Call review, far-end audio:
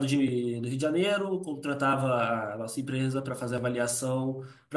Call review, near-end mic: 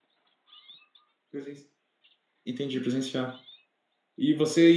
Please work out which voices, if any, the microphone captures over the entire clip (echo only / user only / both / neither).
user only